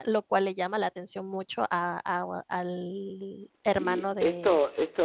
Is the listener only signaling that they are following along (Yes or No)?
No